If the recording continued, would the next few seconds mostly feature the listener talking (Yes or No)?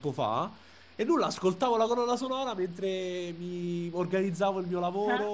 No